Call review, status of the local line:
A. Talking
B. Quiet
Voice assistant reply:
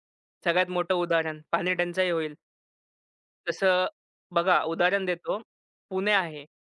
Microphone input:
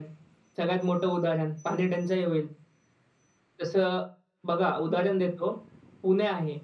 B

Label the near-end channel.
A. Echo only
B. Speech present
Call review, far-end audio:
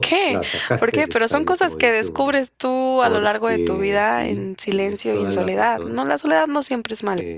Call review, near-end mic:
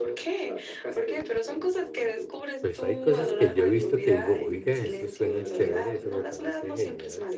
B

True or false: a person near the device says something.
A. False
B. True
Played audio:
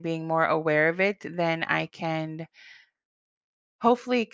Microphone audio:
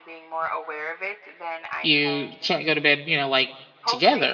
B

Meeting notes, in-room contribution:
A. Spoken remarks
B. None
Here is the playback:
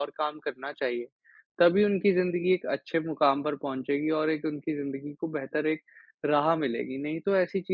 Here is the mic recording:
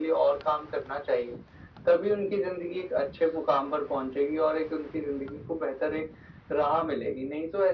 B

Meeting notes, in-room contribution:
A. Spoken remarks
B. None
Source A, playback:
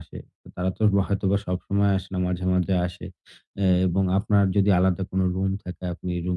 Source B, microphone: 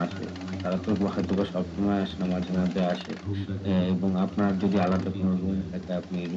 A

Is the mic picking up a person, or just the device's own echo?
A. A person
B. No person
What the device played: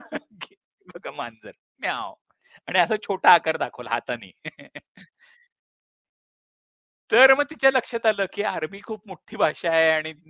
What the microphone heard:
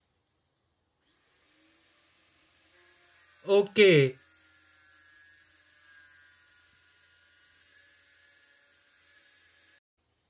A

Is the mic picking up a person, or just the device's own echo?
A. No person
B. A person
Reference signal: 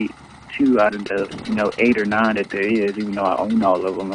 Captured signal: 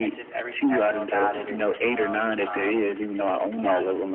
B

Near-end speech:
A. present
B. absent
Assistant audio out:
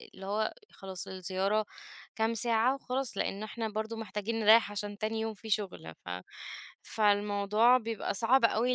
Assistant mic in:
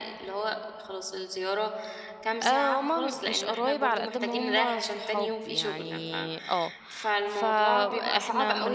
A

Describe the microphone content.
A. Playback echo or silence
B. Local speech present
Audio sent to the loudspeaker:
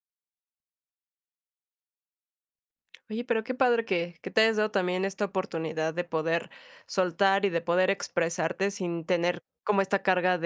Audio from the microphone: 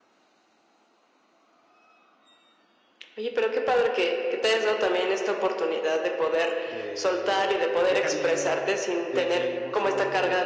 B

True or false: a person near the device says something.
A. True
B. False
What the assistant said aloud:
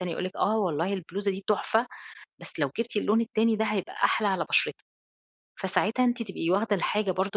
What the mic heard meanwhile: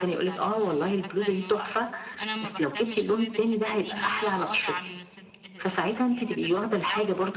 A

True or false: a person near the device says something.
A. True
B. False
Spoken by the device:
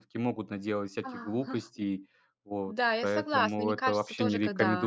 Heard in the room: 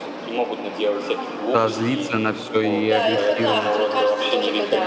A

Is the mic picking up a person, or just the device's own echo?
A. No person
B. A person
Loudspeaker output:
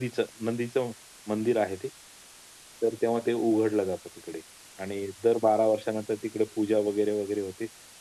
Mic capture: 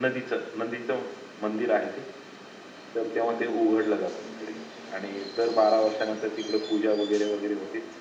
A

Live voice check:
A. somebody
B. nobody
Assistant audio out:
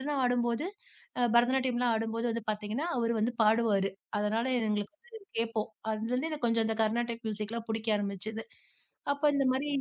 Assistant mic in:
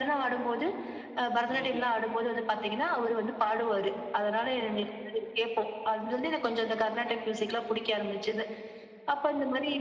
A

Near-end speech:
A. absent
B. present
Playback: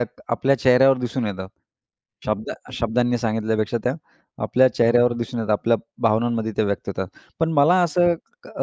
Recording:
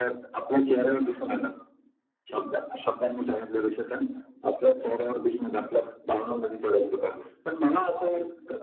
A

